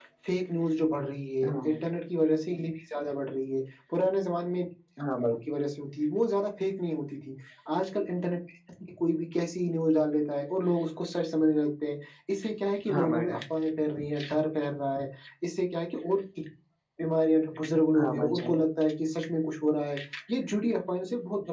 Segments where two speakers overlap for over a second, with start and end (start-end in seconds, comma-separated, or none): none